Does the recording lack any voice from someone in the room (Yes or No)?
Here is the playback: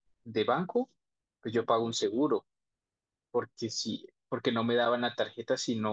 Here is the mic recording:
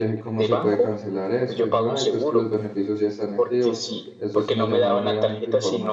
No